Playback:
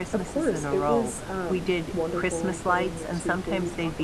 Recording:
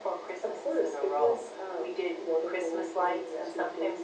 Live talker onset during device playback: none

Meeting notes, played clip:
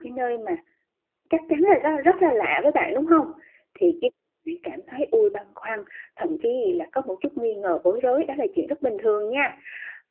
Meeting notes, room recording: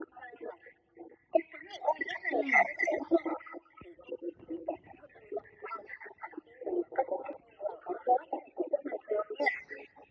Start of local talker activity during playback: 2.3 s

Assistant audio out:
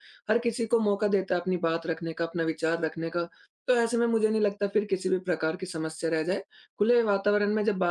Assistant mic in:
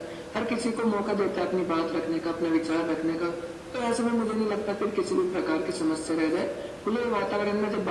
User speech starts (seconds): none

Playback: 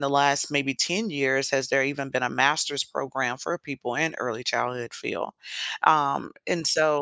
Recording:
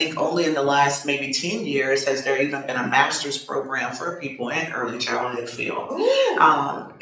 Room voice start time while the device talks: 5.9 s

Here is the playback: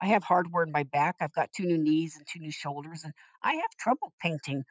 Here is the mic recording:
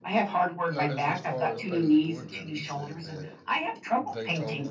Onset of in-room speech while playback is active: 0.7 s

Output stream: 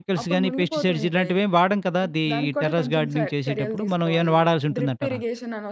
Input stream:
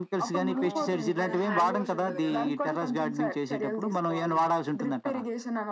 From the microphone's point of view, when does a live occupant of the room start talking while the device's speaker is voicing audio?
0.6 s

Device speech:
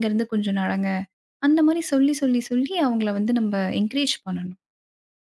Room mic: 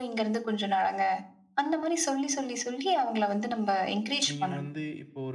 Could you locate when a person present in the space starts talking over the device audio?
4.3 s

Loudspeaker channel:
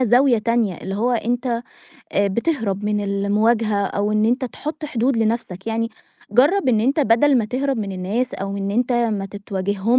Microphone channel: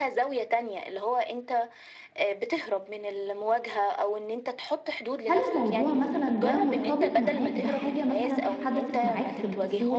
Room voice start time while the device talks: 5.2 s

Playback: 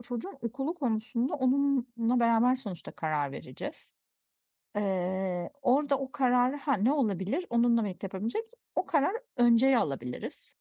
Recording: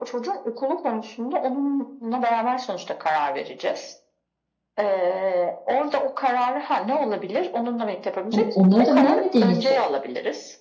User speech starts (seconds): 8.3 s

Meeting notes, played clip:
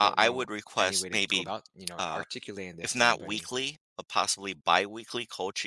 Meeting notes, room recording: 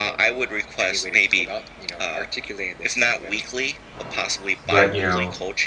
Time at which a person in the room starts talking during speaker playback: 4.7 s

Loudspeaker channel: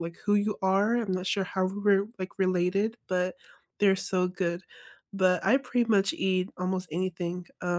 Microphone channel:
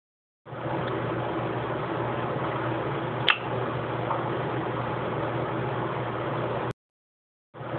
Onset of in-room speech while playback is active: none

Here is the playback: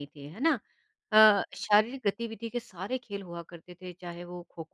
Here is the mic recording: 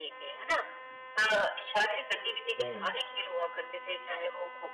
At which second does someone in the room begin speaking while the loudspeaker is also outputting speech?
2.6 s

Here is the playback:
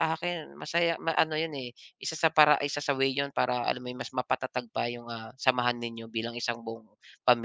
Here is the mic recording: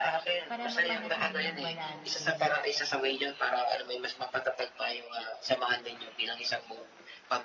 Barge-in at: 0.5 s

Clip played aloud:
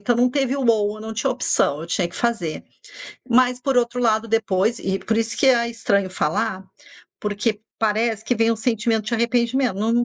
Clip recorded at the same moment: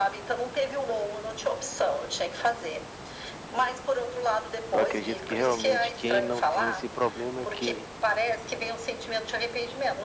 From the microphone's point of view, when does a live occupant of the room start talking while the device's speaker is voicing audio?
4.7 s

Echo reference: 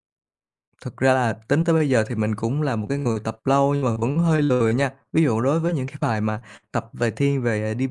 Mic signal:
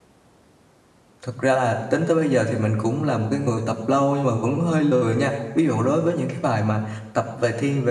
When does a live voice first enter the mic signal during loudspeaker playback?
none

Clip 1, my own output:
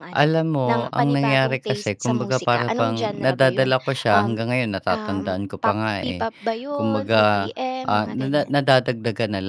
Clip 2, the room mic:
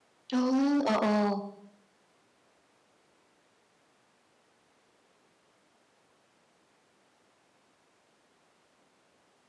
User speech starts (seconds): 0.3 s

